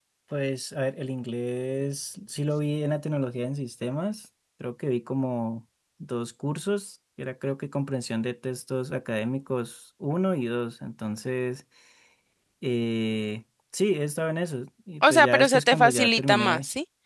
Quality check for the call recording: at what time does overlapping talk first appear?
15.0 s

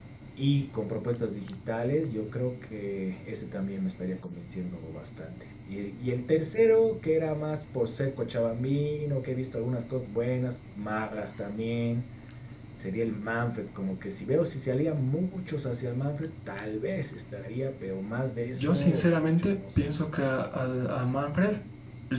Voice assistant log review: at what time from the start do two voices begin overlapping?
18.5 s

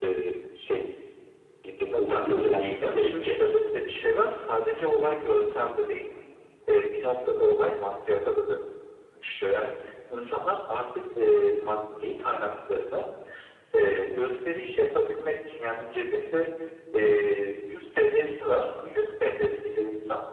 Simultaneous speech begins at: 1.9 s

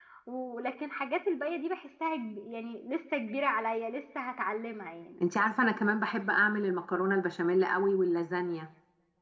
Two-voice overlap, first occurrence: none

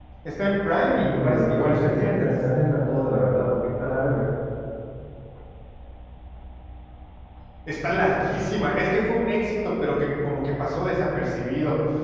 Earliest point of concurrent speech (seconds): 0.9 s

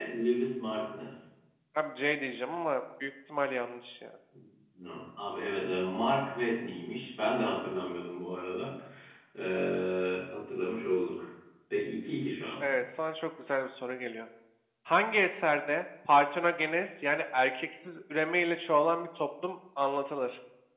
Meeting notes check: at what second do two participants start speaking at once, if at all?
none

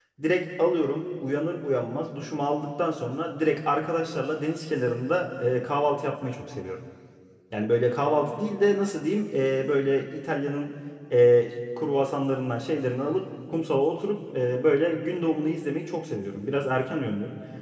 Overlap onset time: none

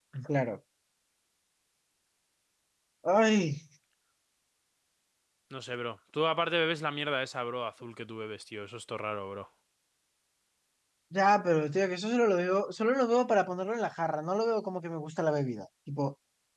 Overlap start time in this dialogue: none

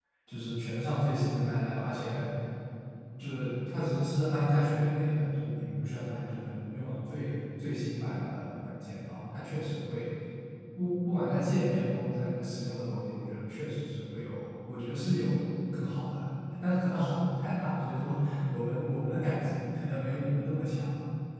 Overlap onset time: none

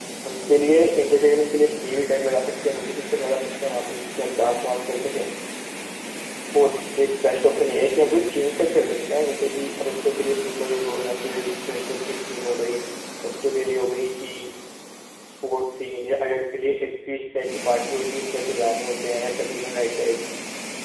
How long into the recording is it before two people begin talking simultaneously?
none

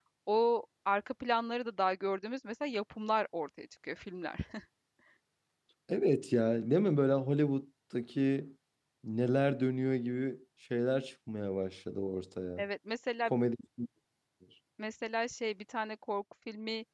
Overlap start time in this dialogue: none

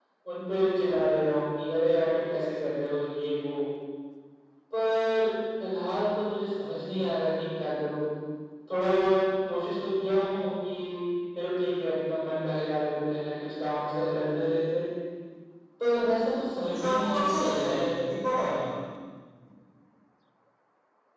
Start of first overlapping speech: 16.7 s

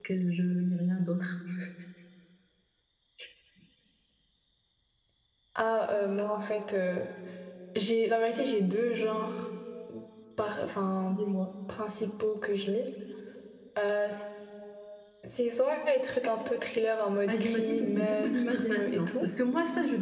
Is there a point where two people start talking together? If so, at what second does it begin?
17.3 s

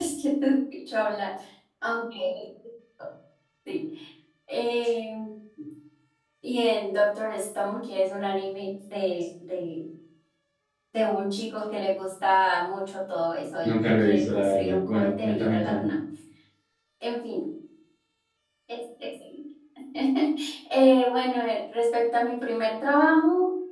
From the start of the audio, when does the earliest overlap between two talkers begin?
13.6 s

